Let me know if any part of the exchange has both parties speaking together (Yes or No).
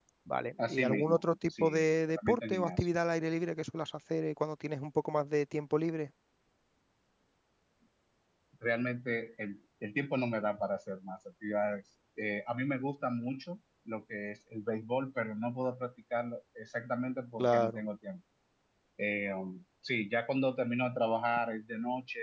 Yes